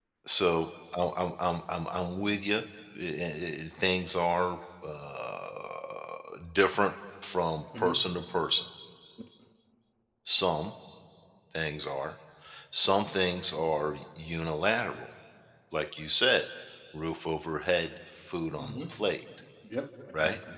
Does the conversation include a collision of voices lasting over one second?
No

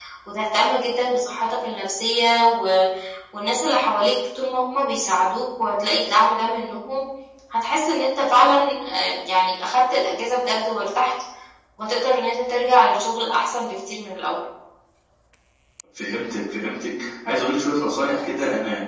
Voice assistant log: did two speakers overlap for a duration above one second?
No

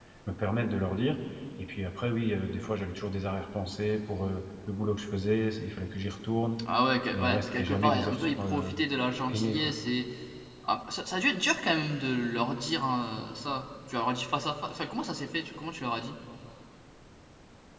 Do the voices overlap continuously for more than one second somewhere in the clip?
Yes, from 7.1 s

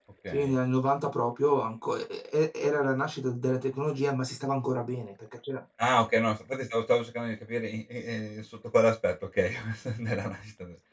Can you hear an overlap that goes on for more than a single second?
No

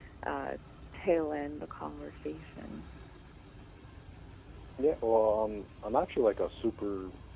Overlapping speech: No

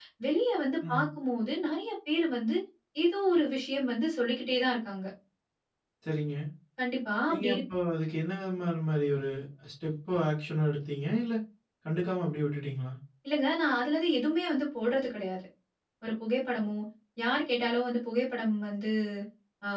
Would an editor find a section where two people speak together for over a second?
No

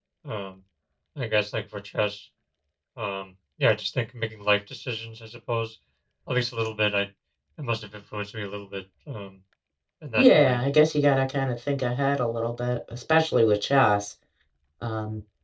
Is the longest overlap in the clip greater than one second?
No

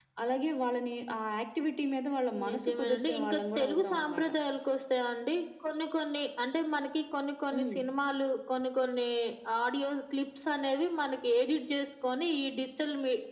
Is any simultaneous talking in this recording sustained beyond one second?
Yes, from 2.5 s

